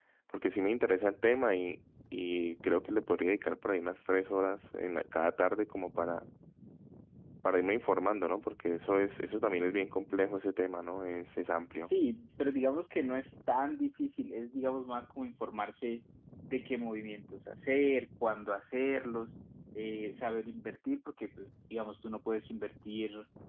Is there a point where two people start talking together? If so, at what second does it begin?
none

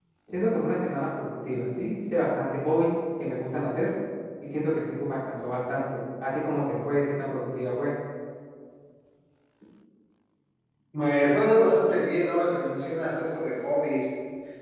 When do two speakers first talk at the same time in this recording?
none

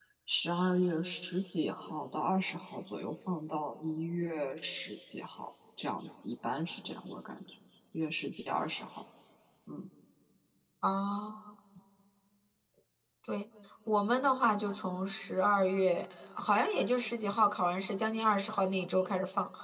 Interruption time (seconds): none

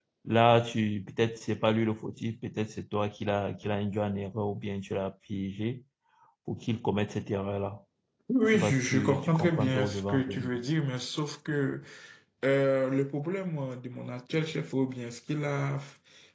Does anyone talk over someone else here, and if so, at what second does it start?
8.5 s

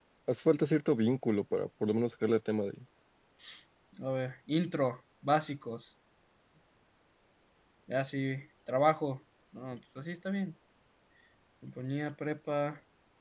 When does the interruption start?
none

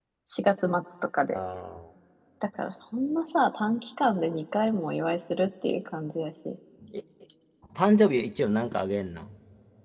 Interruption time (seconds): none

